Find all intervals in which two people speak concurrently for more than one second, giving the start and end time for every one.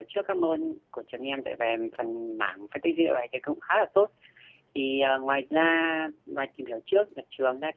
none

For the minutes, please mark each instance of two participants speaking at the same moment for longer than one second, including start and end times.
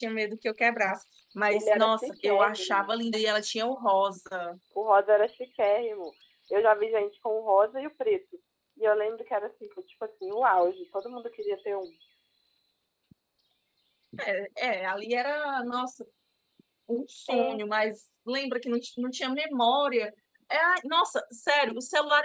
1.5-2.9

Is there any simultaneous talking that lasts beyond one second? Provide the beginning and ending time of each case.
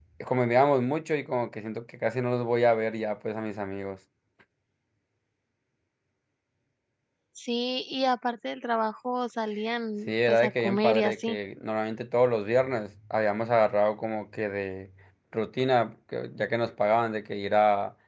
10.1-11.4

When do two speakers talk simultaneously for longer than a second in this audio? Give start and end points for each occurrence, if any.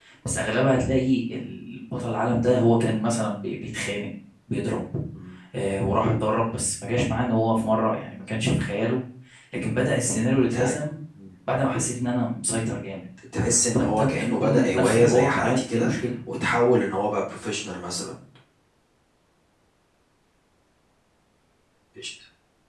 13.7-15.9

